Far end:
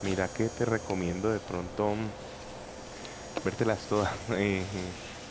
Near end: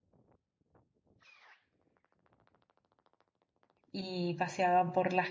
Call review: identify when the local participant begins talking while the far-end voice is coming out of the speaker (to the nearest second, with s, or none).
4 s